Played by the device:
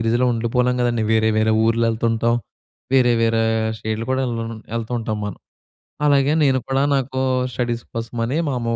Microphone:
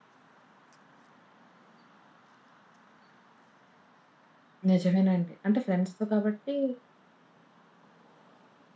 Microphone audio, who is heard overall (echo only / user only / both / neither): user only